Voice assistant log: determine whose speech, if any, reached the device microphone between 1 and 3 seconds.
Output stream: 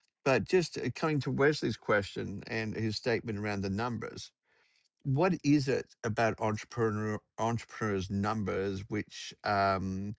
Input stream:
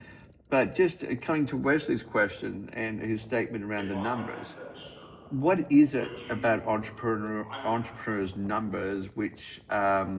echo only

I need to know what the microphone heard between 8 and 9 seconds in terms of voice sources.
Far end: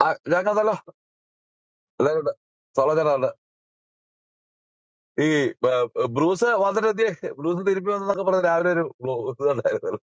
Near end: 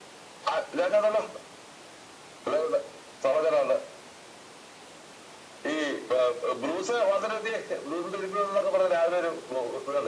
echo only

